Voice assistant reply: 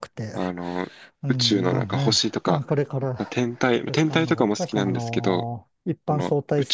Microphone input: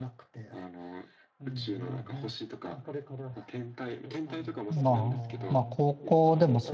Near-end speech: present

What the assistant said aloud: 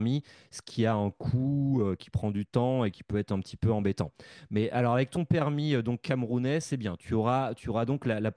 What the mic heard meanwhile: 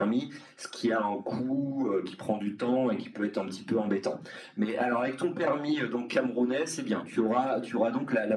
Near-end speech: none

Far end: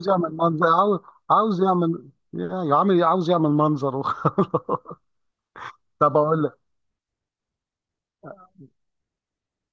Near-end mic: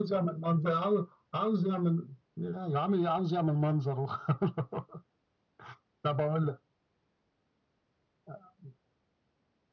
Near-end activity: none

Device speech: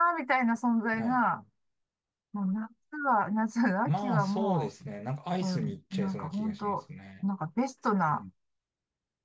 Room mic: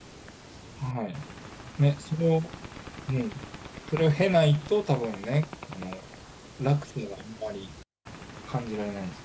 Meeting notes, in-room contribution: present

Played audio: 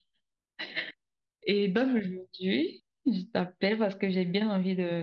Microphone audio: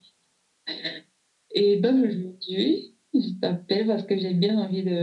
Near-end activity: none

